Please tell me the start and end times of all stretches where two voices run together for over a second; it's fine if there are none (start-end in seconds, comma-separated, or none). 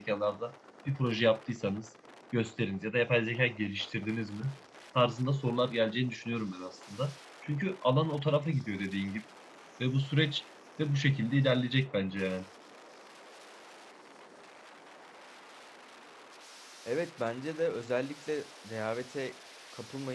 none